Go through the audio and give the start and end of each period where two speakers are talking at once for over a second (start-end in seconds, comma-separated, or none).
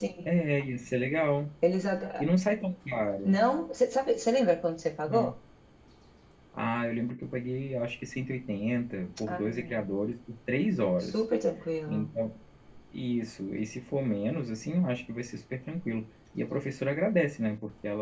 none